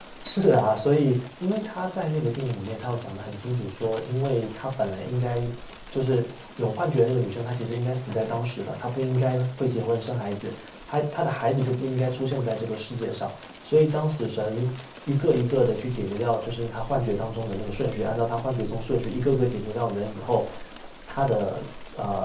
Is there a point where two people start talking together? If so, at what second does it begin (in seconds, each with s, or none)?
none